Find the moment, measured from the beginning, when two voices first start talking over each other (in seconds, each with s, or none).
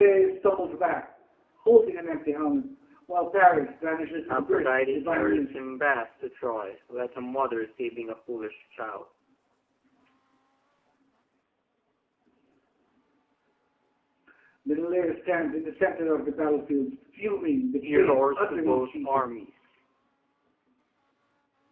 4.3 s